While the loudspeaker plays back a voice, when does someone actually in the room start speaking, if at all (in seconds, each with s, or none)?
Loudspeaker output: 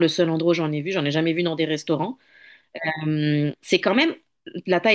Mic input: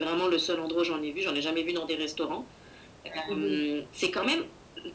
3.3 s